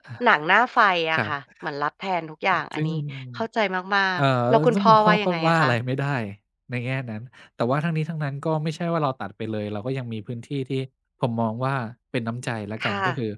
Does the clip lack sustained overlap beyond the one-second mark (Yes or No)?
No